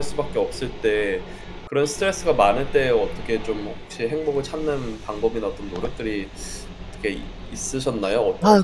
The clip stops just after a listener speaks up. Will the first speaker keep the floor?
No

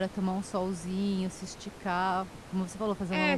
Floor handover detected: Yes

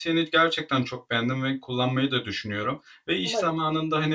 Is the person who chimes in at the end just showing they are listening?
Yes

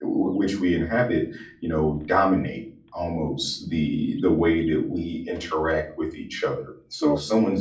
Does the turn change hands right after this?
No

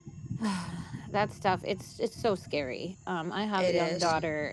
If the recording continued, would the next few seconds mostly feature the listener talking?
No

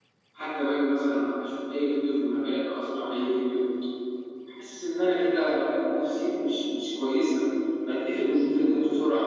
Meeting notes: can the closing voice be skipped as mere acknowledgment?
Yes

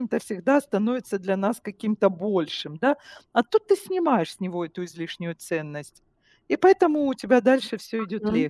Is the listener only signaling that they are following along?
No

